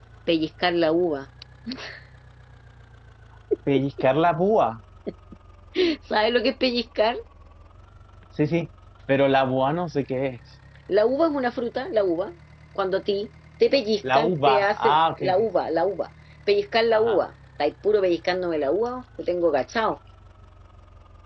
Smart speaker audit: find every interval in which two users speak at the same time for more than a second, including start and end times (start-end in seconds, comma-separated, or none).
14.1-15.5